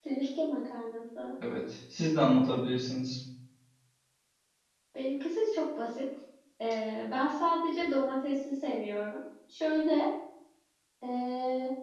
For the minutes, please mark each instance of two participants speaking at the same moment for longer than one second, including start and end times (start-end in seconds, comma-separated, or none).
none